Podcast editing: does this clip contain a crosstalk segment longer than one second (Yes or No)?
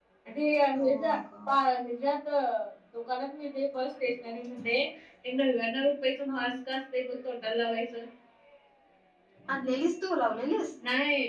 No